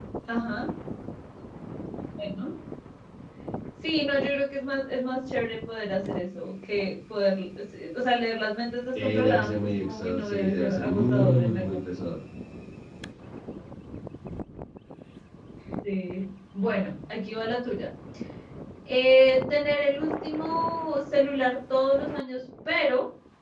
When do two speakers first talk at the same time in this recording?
9.0 s

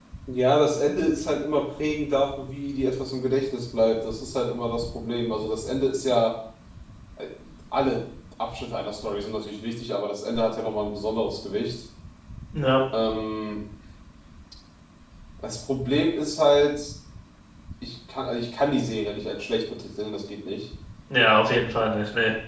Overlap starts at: none

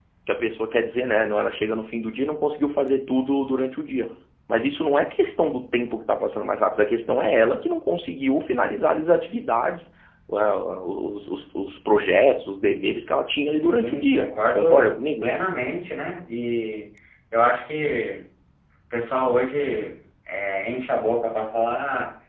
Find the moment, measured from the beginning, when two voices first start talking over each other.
13.5 s

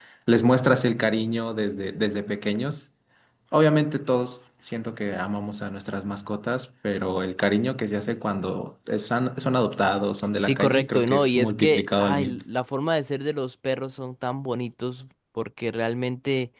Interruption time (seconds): 10.4 s

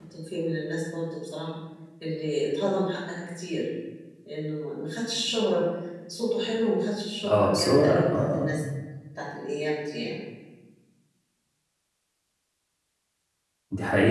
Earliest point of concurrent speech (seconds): 7.2 s

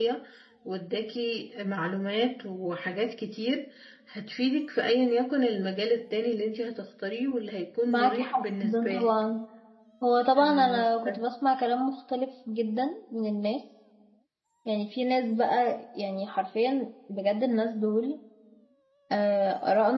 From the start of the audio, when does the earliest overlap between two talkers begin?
7.9 s

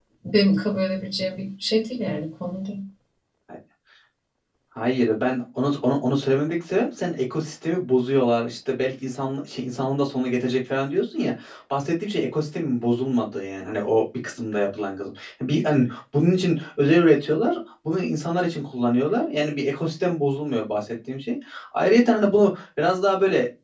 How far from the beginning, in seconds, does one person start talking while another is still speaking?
none

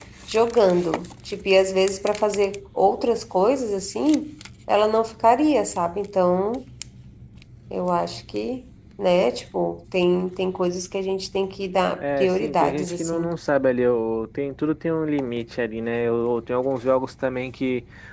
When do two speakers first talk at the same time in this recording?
12.0 s

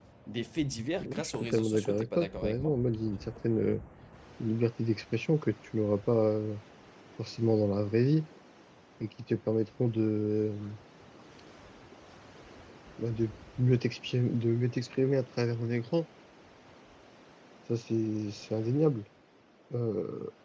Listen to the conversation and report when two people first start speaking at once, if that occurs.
1.0 s

